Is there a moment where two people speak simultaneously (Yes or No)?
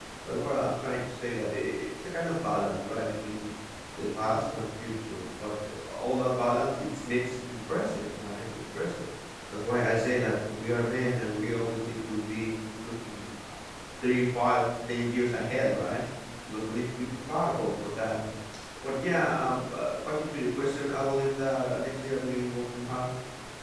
No